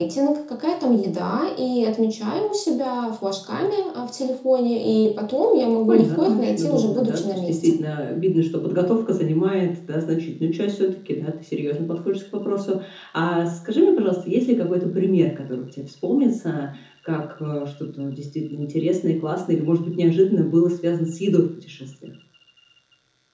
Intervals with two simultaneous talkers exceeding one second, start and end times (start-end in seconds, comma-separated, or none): 5.9-7.8